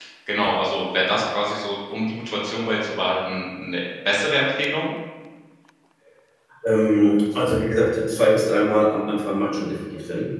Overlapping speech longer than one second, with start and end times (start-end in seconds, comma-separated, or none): none